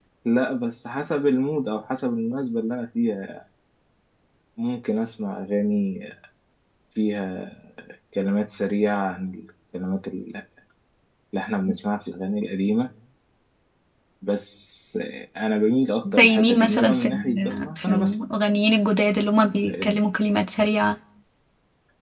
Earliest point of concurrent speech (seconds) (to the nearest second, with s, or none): 16 s